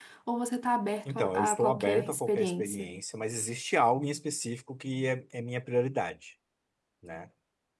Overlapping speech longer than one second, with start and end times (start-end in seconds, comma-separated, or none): 1.1-2.9